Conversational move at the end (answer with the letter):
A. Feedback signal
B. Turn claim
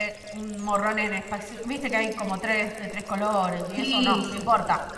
B